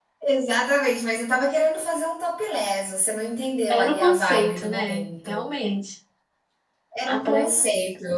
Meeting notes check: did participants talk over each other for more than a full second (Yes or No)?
Yes